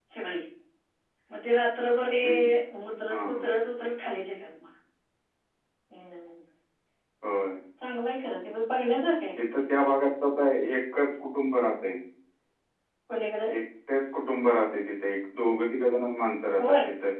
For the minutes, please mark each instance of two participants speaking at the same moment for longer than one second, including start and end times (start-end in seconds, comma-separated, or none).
none